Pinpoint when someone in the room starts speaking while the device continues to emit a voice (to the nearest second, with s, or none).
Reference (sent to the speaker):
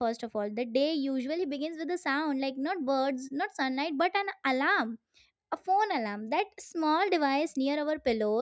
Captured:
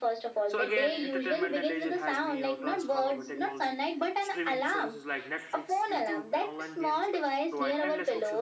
0 s